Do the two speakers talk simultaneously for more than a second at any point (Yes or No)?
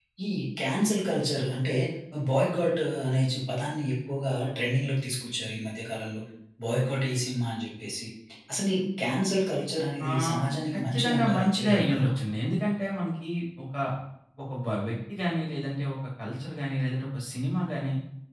Yes